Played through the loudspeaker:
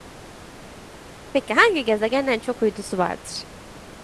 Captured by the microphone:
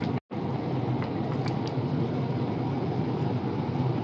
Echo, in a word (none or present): none